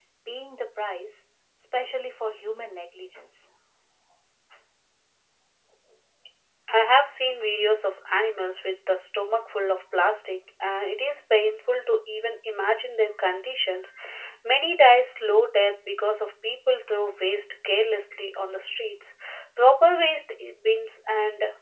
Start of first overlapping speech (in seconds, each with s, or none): none